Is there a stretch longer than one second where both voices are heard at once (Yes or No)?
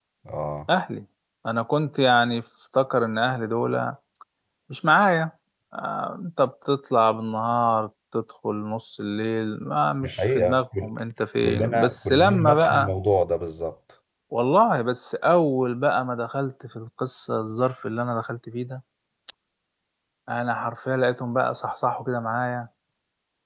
Yes